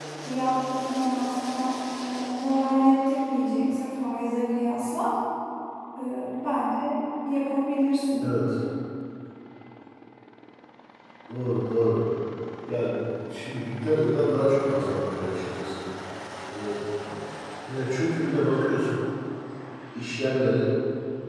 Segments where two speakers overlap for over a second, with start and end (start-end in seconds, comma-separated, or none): none